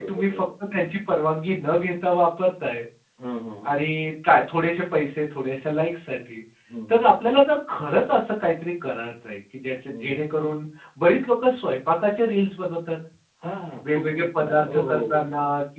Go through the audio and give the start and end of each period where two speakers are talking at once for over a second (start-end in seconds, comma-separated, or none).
13.9-15.2